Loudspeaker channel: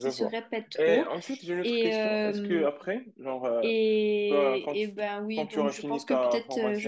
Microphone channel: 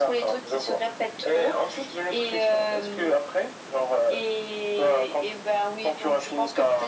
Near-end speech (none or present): none